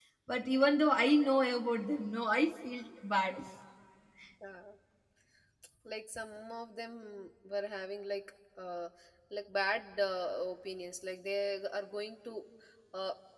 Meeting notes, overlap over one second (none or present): none